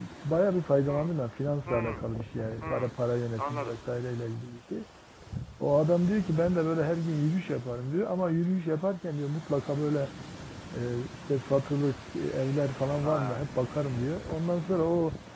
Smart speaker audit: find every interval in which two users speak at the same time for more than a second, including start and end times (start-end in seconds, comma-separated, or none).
none